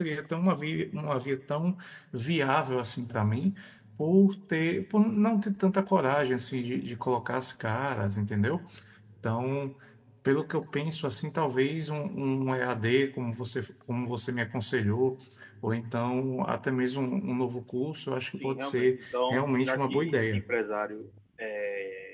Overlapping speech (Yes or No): Yes